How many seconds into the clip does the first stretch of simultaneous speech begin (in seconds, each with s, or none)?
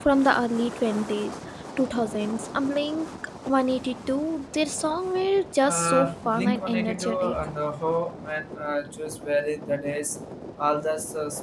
5.6 s